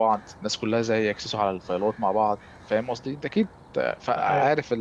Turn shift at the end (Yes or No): Yes